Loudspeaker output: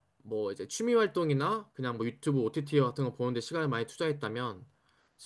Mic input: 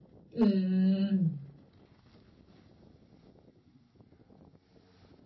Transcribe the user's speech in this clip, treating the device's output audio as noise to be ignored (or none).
음.